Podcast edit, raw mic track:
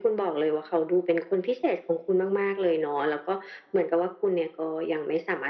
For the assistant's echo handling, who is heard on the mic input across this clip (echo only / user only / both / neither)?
echo only